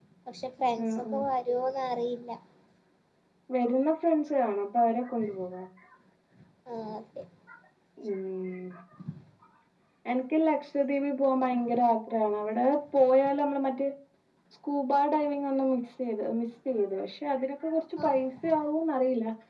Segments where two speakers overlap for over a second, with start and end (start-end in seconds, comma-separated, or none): none